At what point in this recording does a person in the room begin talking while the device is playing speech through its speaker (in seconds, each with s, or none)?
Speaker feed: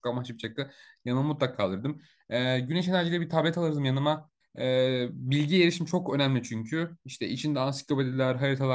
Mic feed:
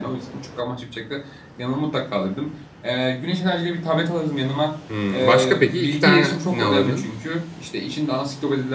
4.9 s